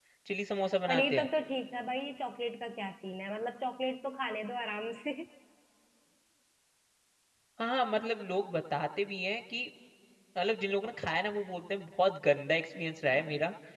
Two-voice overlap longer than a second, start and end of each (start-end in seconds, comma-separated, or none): none